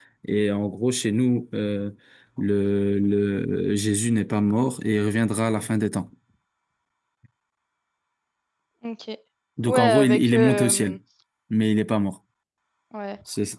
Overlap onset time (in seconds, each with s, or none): 9.7 s